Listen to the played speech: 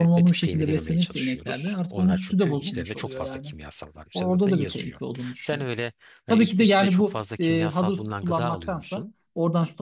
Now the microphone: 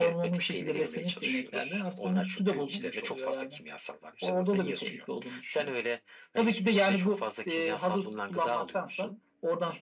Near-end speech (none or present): none